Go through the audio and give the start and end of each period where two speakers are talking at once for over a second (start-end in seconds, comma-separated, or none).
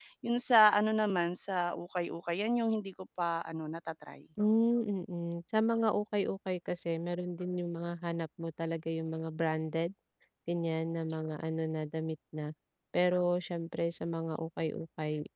none